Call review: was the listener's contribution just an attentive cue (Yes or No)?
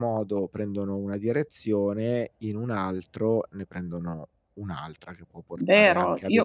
No